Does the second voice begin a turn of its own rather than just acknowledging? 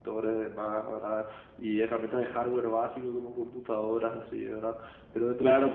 Yes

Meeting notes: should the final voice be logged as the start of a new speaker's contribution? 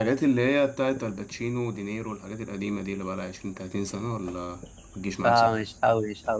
Yes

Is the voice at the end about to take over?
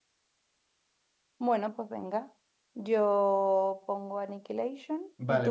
Yes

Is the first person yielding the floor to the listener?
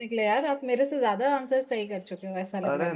Yes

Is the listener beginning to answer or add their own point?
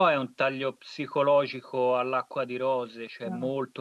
No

